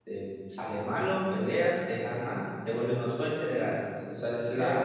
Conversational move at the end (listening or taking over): taking over